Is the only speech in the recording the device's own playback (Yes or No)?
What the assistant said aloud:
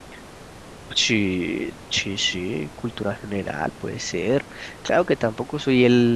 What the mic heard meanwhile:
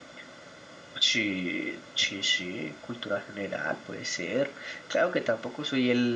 Yes